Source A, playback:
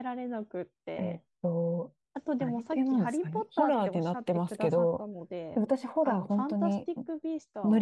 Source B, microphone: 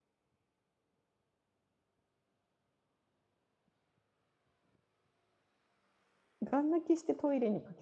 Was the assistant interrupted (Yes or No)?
Yes